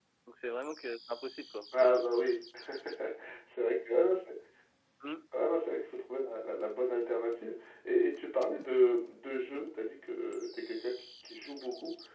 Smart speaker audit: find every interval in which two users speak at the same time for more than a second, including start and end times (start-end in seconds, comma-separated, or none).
none